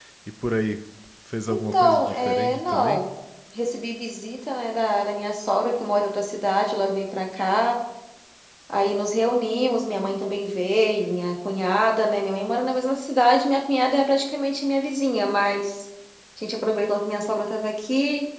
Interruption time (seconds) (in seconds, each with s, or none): 1.5 s